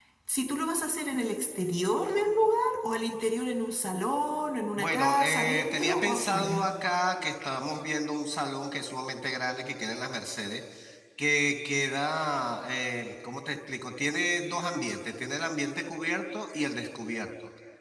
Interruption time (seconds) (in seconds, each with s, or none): 4.8 s